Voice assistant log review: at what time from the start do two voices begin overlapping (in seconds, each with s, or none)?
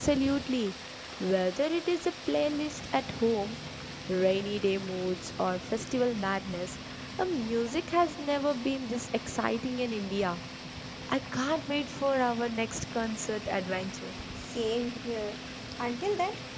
none